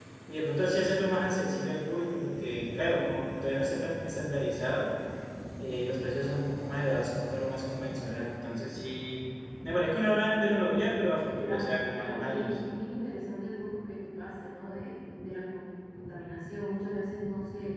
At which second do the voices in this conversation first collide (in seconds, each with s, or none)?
11.3 s